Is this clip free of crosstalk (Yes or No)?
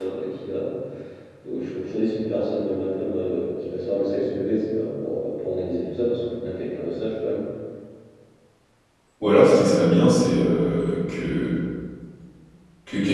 Yes